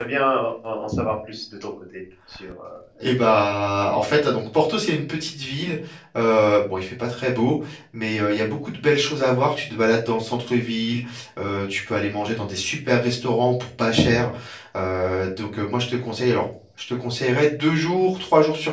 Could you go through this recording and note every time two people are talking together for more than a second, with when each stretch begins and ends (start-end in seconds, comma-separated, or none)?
none